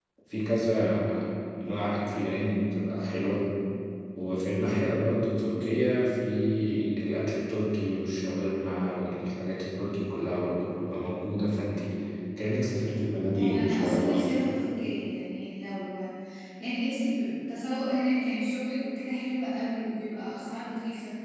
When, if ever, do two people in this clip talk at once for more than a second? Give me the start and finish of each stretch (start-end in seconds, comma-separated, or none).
13.3-14.8